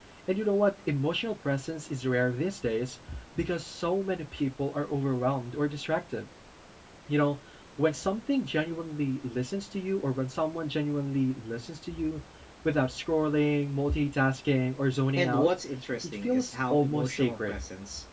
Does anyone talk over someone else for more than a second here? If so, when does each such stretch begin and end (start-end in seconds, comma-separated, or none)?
16.1-17.5